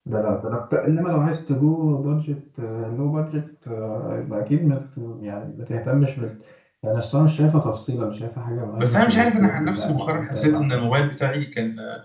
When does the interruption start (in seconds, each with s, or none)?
8.8 s